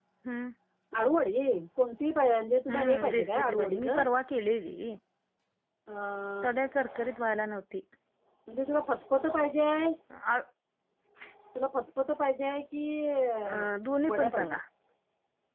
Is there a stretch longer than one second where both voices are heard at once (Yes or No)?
Yes